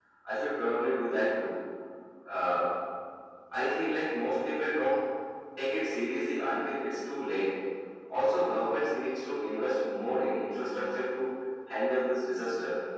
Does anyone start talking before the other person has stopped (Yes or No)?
No